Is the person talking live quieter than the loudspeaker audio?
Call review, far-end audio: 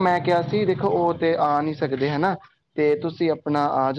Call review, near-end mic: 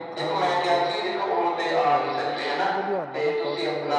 Yes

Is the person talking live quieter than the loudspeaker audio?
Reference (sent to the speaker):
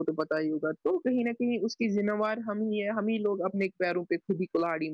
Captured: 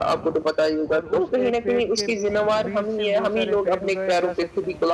Yes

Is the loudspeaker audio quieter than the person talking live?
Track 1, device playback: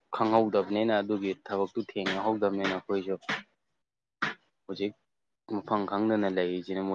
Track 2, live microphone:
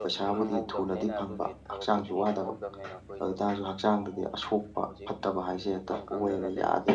Yes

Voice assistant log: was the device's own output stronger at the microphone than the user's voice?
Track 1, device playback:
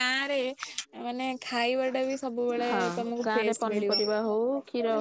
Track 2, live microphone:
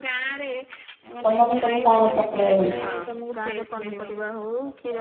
No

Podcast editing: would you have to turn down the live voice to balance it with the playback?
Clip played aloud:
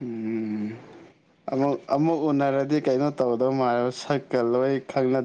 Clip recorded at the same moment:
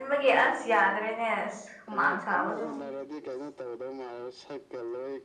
Yes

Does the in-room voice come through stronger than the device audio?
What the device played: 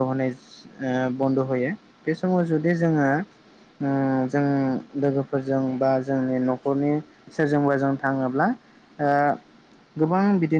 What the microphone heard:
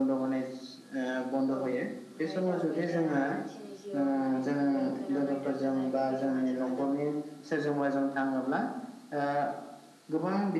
No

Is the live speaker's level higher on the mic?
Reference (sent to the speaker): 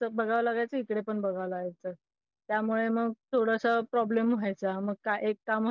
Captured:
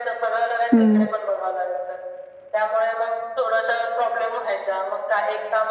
Yes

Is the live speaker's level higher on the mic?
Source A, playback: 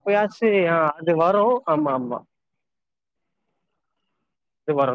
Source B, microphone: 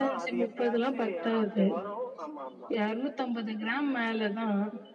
Yes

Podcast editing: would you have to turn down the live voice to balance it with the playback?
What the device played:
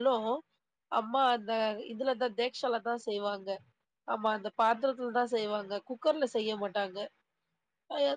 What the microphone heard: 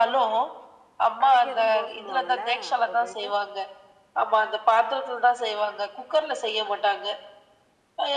No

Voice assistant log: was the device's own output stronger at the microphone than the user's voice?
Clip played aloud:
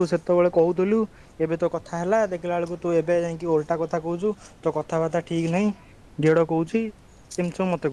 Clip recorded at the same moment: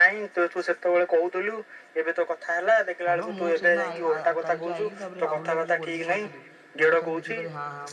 Yes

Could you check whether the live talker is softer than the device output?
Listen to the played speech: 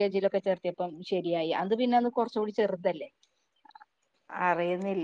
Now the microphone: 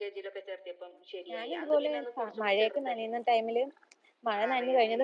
No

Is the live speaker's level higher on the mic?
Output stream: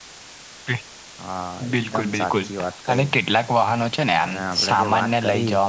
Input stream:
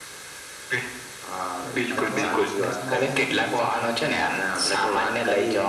No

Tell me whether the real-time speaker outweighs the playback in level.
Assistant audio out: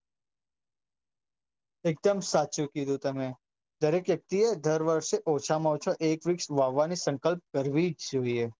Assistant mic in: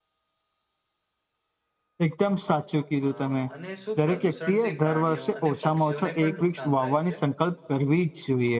No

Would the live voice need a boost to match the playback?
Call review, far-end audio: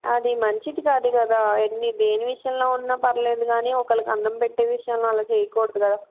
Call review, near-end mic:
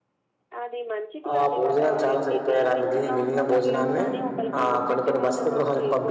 No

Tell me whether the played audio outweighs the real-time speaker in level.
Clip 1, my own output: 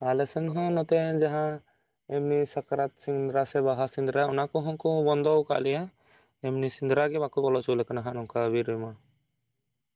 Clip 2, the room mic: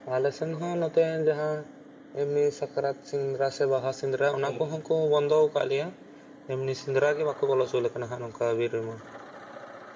Yes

